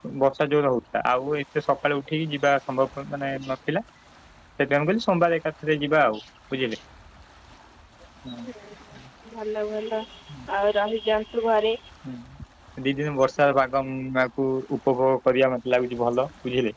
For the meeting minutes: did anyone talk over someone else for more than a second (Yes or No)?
No